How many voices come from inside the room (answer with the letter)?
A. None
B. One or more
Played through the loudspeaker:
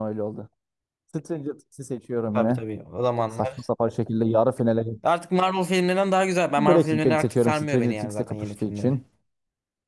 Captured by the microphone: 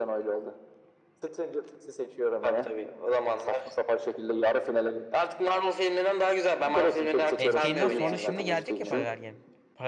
B